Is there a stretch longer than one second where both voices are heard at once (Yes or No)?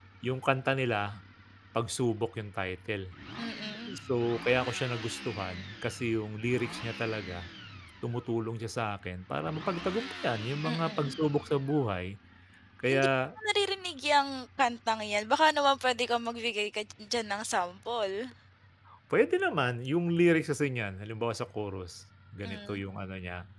No